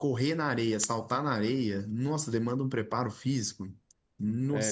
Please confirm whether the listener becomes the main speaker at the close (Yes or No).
Yes